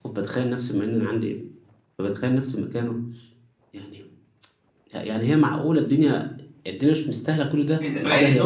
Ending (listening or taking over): taking over